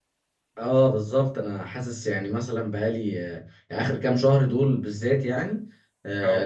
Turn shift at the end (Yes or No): No